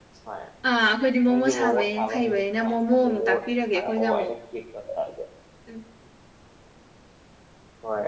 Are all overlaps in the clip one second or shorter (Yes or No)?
No